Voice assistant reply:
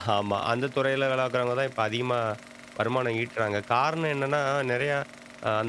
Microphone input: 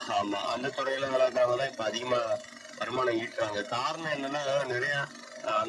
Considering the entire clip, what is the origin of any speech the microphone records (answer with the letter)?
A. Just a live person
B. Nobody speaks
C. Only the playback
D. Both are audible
C